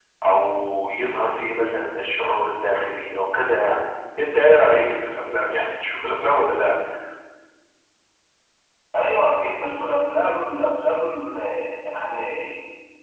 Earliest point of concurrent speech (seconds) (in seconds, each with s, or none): none